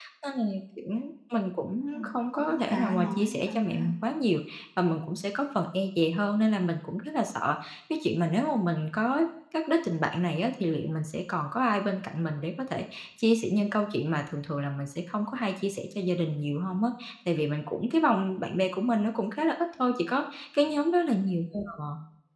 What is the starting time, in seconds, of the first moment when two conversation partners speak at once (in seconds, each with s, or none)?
1.9 s